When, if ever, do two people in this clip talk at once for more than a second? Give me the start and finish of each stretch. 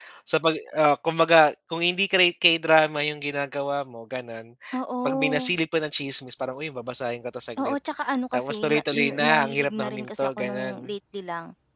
8.3-10.9

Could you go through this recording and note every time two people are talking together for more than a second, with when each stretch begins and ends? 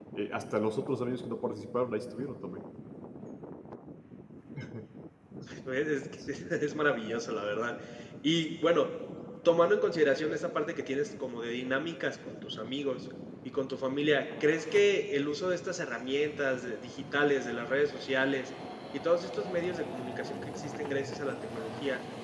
none

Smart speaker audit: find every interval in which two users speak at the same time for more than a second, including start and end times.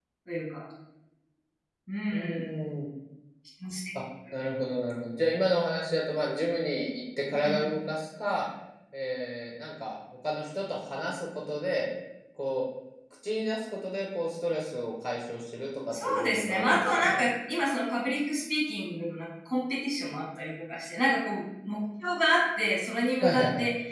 15.9-17.2

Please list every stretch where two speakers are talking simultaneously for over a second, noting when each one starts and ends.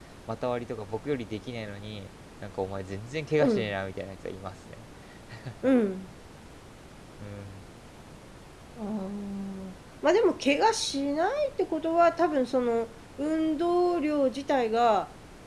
none

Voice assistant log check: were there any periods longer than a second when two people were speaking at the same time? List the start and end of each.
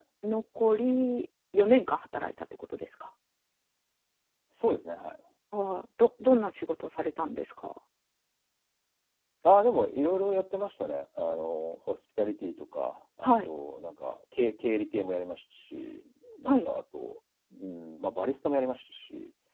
none

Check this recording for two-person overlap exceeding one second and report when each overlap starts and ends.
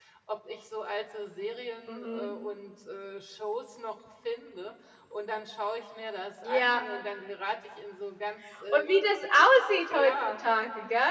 none

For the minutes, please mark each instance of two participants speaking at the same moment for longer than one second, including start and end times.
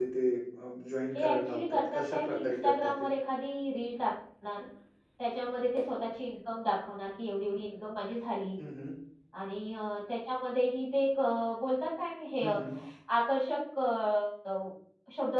1.1-3.0

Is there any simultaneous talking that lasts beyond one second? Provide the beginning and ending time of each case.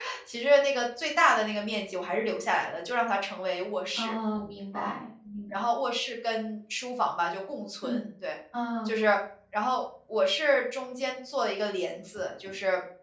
none

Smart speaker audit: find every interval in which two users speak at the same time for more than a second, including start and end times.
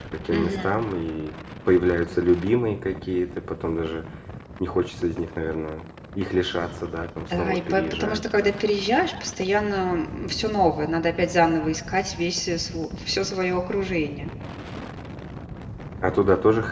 7.3-8.5

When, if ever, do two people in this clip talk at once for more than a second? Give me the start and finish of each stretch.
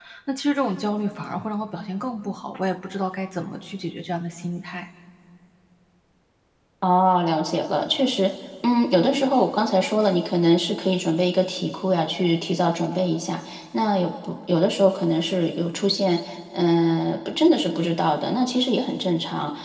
none

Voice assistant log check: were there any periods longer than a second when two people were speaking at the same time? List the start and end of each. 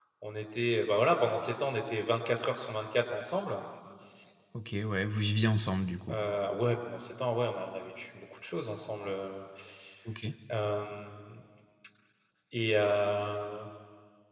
none

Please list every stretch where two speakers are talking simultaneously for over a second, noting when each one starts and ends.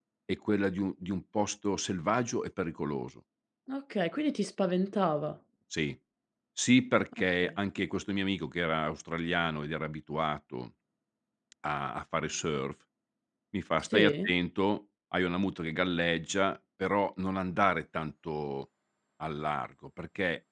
none

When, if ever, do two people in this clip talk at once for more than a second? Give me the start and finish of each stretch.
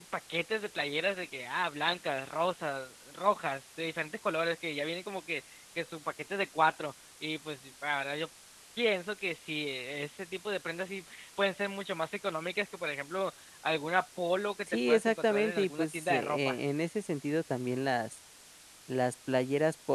14.9-16.6

